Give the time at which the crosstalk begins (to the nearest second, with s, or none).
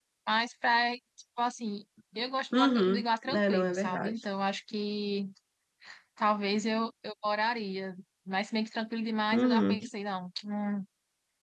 3 s